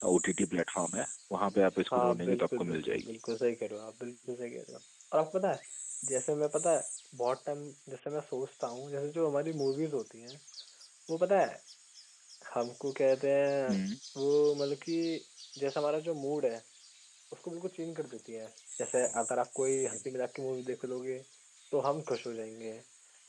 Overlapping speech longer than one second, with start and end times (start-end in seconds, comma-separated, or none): 1.9-3.1